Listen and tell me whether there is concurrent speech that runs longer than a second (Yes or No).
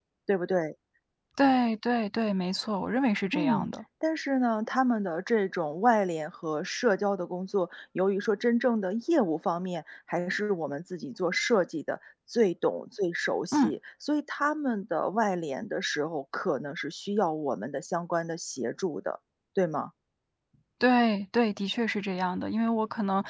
No